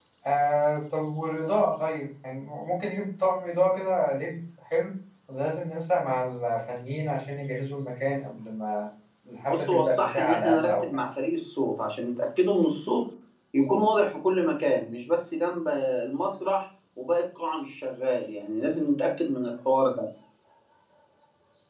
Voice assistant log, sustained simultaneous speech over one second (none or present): present